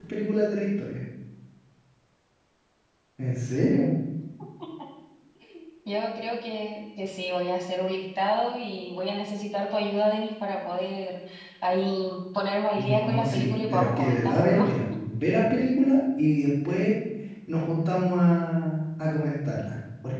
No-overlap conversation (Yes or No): No